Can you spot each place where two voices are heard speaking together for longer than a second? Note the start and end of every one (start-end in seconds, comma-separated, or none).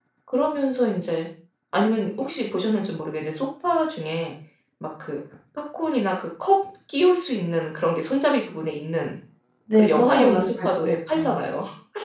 9.8-11.4